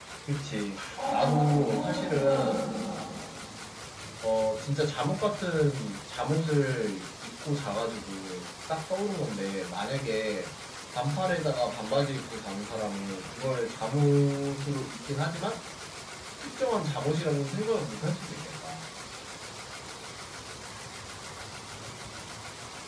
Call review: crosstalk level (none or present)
present